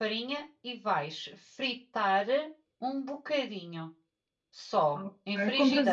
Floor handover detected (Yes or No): Yes